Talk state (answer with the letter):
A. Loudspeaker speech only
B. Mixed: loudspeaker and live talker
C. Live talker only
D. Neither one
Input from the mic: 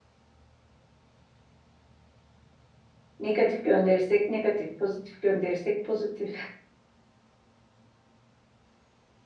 C